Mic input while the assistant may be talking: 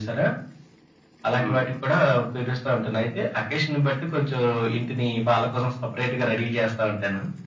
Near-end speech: present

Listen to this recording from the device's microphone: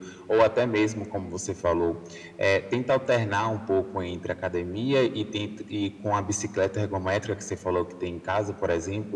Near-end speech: none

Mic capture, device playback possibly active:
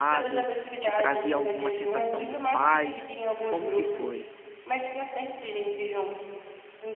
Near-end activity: present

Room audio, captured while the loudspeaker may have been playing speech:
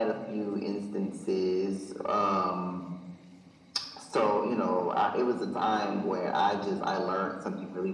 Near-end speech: none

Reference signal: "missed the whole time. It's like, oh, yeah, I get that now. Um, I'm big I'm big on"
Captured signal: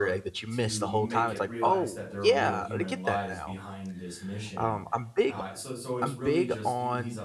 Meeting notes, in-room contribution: present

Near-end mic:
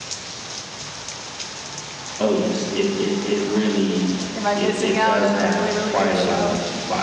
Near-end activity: present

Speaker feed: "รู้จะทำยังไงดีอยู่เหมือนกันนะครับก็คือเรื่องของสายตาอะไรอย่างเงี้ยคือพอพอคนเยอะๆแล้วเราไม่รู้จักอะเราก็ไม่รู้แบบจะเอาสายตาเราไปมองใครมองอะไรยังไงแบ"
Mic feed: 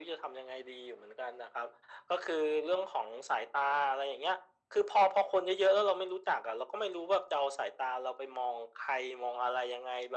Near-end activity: none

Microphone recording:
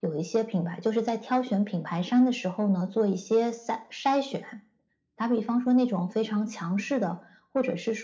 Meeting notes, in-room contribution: none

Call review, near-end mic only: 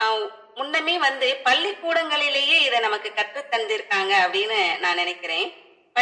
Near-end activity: none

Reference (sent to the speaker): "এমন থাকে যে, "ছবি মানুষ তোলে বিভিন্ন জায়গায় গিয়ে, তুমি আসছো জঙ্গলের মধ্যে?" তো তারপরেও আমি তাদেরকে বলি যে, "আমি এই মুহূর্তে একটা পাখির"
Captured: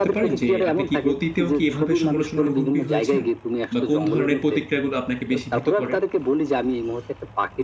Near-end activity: present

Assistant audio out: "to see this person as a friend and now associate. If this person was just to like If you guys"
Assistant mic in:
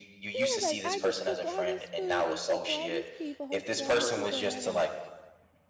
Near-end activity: present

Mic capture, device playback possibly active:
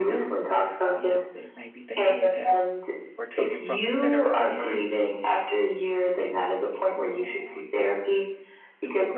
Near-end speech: present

